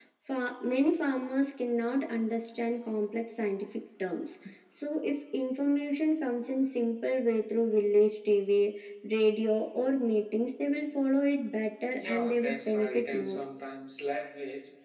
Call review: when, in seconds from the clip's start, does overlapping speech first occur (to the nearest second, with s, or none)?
12 s